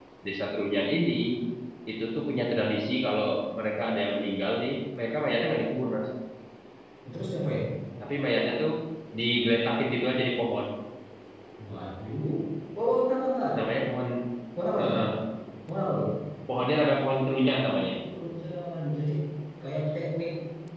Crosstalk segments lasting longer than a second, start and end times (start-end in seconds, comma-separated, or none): none